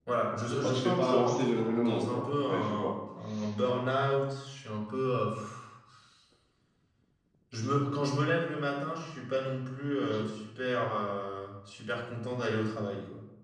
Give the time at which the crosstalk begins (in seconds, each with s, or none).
0.6 s